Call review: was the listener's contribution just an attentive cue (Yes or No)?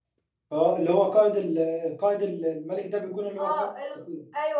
No